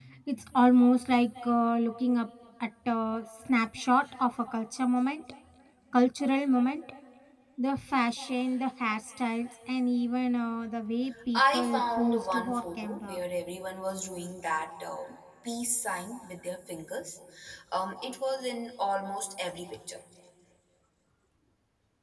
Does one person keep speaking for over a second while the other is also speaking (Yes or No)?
Yes